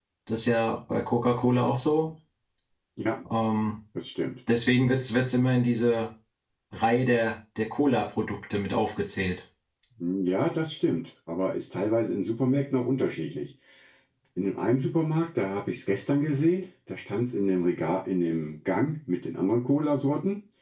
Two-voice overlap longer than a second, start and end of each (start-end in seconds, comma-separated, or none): none